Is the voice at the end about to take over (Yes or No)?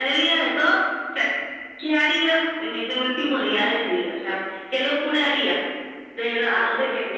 No